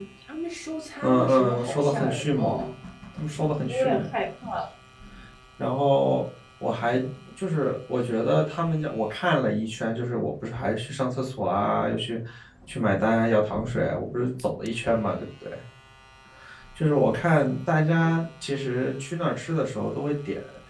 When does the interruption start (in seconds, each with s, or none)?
1.0 s